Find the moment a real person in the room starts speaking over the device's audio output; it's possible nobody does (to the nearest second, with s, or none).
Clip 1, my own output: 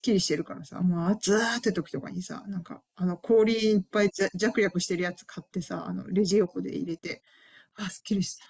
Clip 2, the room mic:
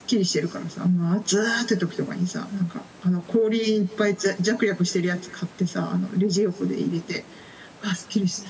none